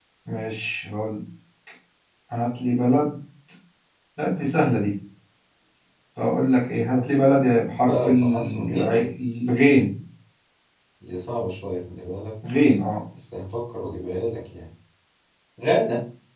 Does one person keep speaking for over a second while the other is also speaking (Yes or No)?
Yes